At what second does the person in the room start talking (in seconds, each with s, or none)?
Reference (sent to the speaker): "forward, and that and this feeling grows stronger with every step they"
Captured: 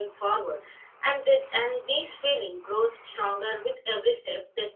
none